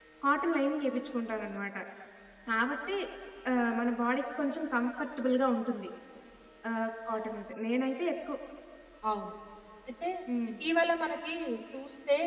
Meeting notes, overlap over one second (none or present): none